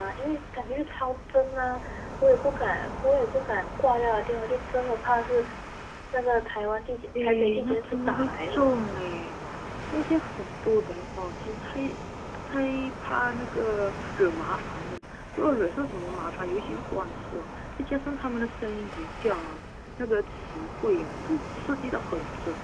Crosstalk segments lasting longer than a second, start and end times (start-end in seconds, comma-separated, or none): 7.2-8.7